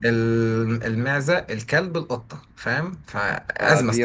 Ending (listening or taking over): taking over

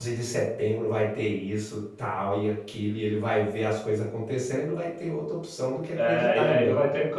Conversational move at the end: taking over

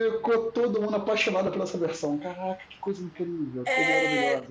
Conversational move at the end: taking over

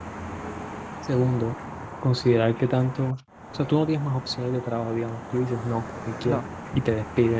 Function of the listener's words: listening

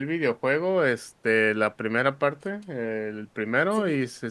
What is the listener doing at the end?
listening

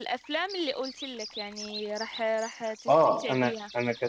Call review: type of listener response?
taking over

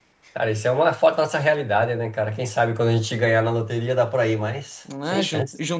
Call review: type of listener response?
taking over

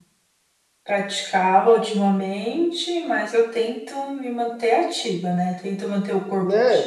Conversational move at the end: listening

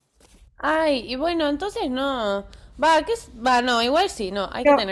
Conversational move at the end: taking over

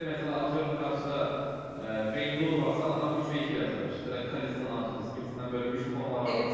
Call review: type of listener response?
listening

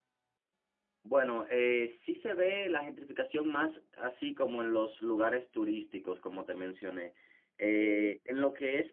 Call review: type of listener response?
listening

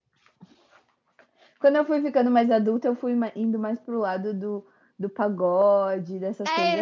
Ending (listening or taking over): taking over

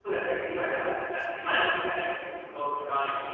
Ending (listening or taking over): listening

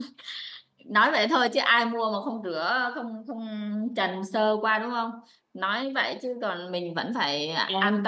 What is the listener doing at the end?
taking over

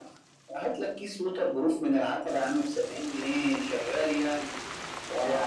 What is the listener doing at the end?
listening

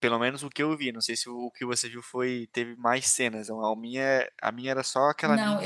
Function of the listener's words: taking over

